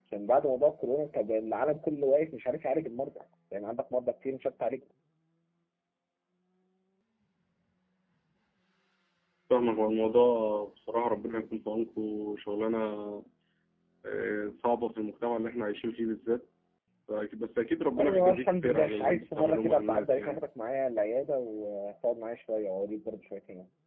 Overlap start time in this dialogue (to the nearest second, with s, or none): 18 s